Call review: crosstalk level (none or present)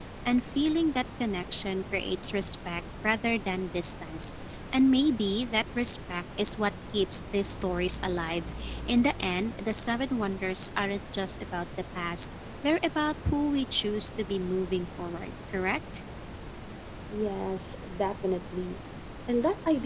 none